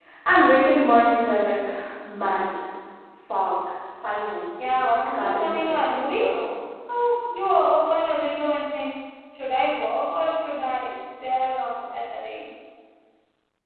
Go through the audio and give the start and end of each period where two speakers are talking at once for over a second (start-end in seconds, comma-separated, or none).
4.6-6.4